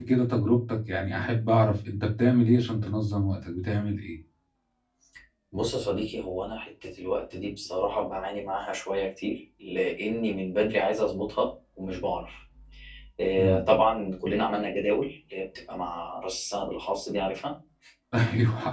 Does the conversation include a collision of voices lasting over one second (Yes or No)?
No